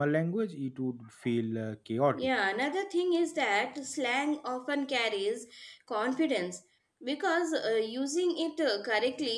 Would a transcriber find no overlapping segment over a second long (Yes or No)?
Yes